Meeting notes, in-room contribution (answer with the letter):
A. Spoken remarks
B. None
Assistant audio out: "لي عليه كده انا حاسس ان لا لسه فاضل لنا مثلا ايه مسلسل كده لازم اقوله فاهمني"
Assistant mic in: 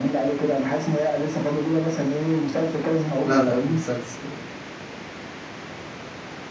A